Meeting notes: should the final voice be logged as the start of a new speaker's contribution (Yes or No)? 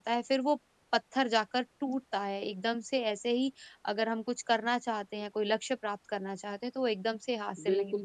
Yes